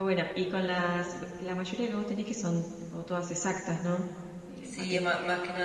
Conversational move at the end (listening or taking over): taking over